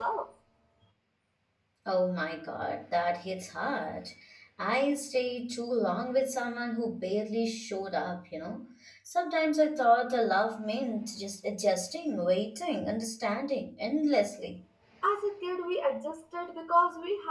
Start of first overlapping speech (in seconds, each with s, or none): none